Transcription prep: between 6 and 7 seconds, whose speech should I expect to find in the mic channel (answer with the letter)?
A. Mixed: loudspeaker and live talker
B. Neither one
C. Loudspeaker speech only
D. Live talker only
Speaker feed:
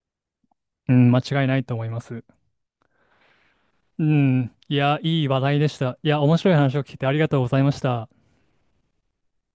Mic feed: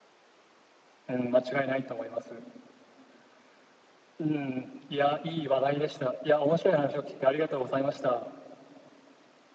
C